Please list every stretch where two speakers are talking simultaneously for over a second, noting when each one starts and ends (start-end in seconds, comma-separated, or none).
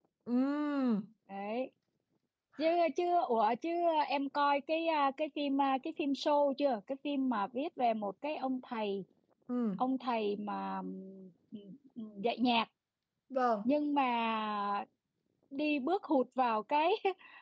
none